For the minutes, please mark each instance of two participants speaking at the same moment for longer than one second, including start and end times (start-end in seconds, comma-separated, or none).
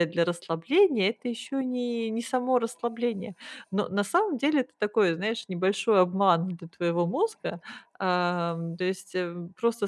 none